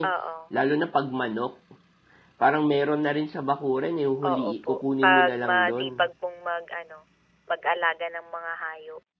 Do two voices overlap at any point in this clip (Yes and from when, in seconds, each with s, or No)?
Yes, from 4.2 s